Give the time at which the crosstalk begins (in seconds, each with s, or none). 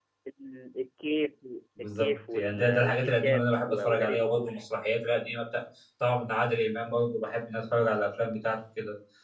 1.8 s